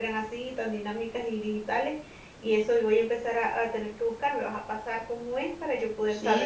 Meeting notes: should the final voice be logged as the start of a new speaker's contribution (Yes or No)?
Yes